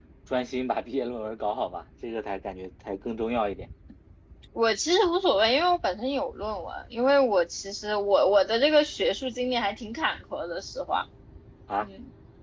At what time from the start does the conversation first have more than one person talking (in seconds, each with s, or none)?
none